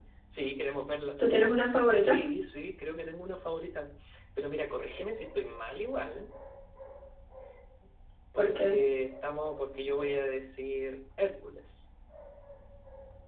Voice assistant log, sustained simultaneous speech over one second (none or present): none